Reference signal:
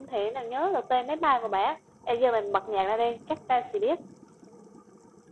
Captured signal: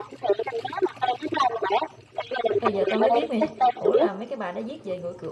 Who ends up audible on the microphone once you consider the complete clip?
both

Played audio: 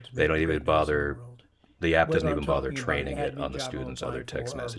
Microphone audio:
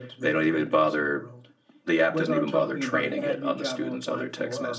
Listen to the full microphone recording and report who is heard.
echo only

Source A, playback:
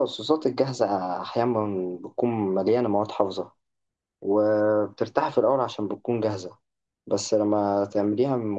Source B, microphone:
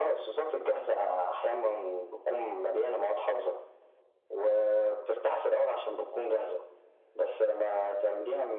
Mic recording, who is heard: echo only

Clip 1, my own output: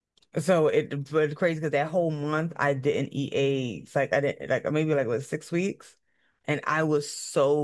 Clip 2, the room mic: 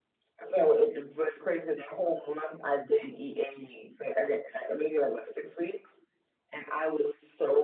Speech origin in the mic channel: echo only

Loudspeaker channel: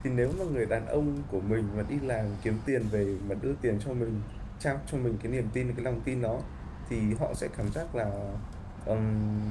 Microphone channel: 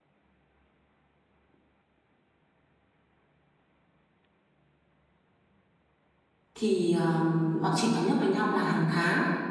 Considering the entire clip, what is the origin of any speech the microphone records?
user only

